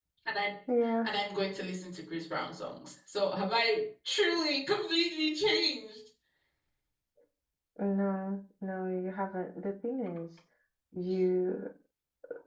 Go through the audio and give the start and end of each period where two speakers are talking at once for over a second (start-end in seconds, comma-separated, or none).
none